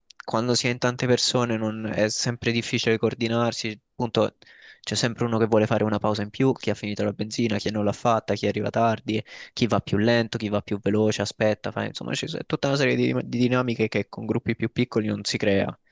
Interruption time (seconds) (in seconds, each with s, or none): none